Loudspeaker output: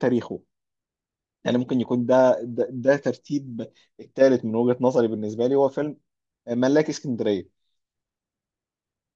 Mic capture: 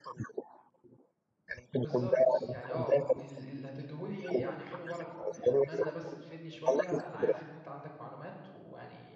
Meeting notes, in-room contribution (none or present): present